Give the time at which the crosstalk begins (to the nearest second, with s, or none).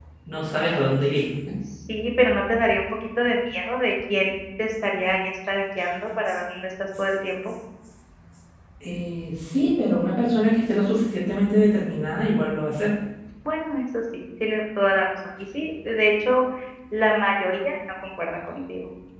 none